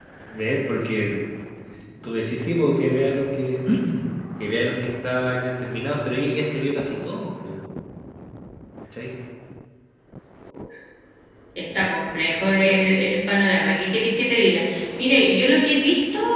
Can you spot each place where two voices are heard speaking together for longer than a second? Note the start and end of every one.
none

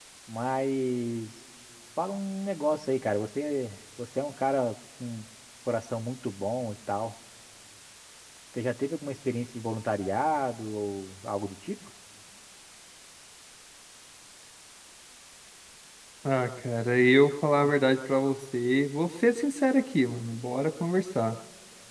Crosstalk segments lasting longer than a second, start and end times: none

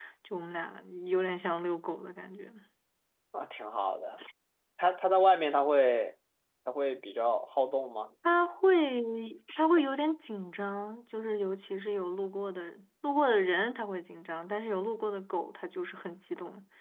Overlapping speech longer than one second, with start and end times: none

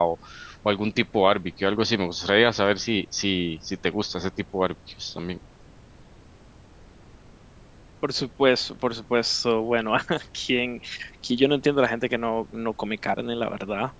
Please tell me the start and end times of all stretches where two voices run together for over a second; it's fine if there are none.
none

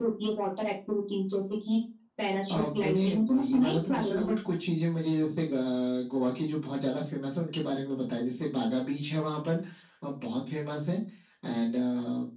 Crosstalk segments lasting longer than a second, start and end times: 2.5-4.3

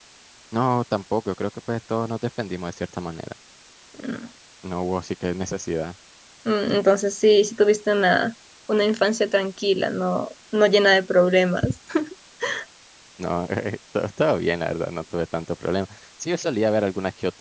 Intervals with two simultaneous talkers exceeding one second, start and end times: none

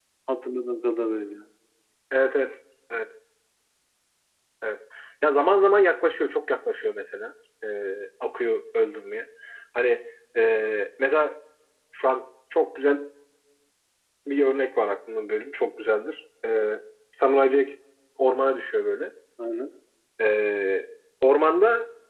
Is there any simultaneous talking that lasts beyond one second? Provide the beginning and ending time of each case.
none

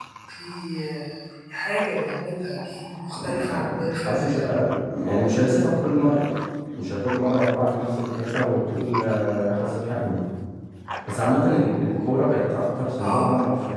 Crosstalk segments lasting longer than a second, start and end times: 3.2-4.4

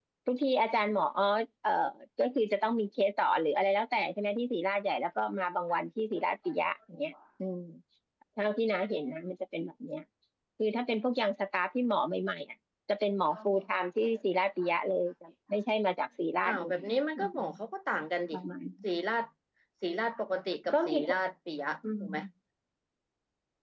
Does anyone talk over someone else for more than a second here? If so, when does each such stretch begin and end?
none

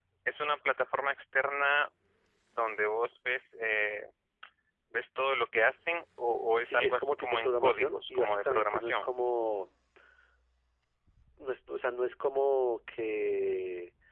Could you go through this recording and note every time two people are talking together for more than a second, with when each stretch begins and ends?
6.6-9.1

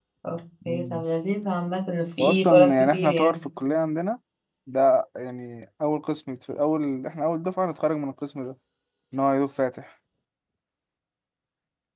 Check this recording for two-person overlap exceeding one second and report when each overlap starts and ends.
2.2-3.4

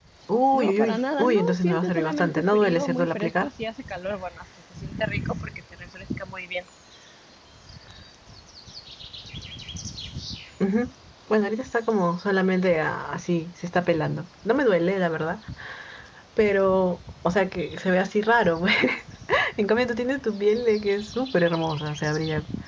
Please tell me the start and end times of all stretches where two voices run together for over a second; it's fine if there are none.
0.5-3.5

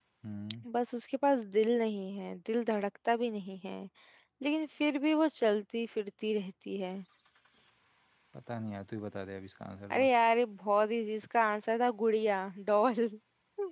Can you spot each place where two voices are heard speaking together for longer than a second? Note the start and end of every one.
none

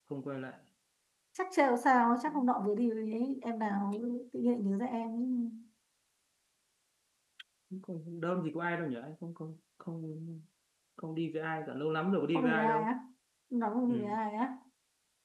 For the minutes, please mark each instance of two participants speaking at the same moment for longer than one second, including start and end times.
none

